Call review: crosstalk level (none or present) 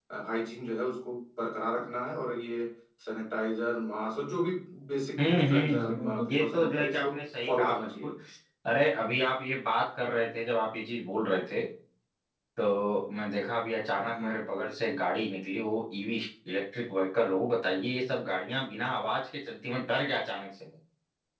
present